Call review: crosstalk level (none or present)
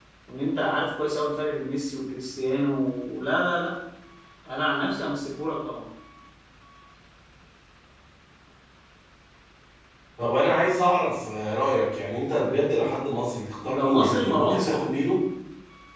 present